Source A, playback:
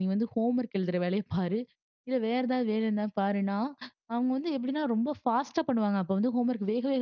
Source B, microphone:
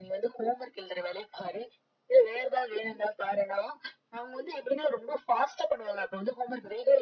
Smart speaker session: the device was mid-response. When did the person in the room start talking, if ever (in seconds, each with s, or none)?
none